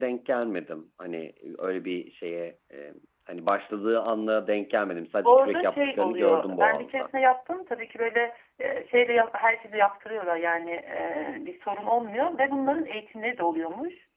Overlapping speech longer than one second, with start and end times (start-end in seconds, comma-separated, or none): 5.2-7.1